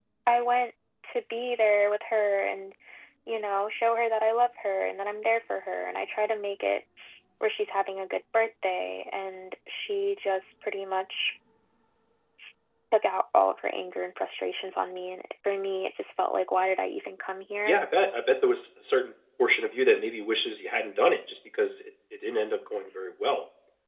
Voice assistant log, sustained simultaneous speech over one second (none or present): none